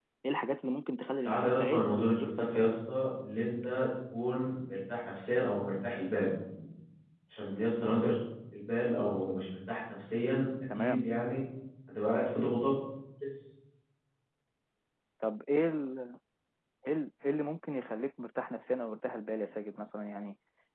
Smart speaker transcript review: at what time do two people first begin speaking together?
1.1 s

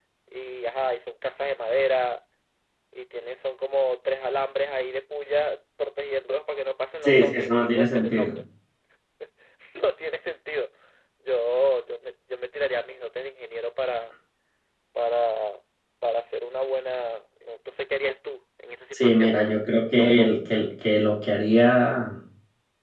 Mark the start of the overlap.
7.0 s

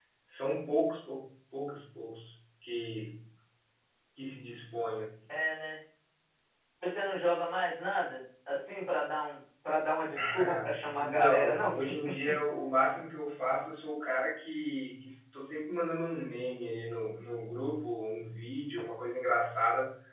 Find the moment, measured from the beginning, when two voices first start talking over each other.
10.1 s

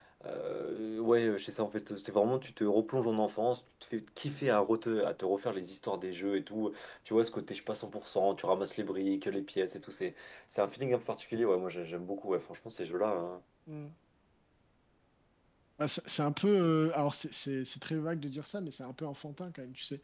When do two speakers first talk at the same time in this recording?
none

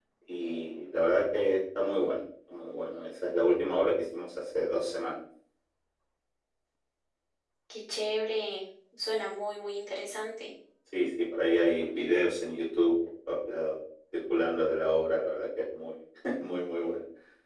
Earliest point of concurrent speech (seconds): none

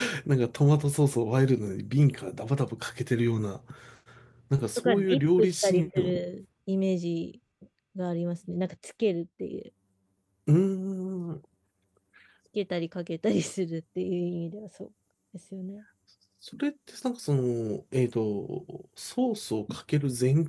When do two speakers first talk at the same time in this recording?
4.8 s

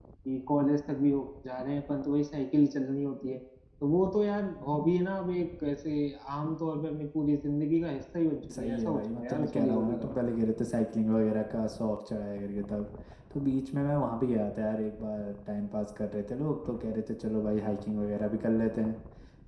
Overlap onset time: 8.4 s

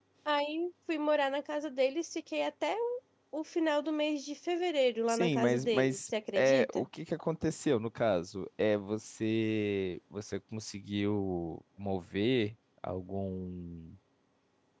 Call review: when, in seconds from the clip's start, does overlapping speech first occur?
5.1 s

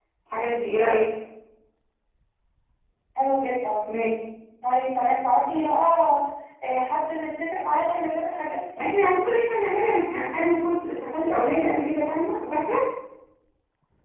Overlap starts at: none

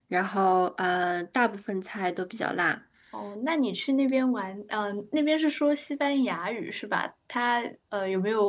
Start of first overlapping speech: none

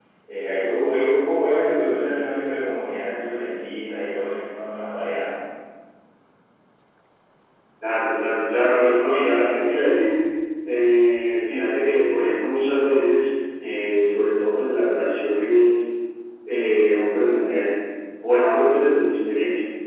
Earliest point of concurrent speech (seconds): none

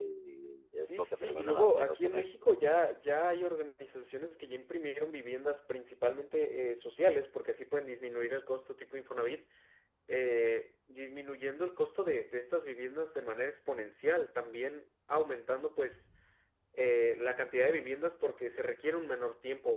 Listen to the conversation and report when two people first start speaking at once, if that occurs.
0.8 s

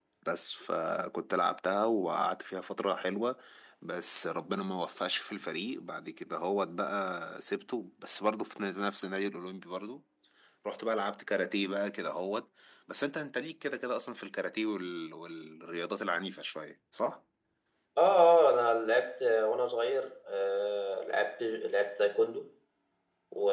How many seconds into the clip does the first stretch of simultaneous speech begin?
none

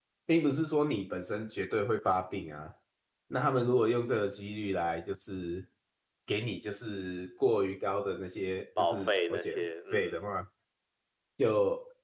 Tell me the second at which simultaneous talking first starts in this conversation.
8.8 s

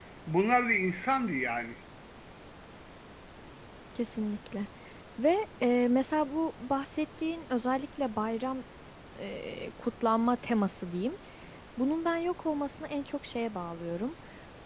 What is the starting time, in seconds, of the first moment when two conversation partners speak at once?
none

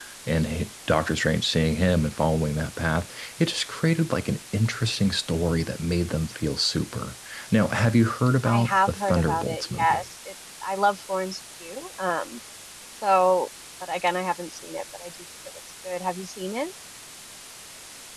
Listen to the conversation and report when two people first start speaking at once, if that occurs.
8.4 s

